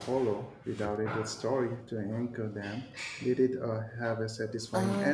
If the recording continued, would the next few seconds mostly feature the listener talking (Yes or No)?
Yes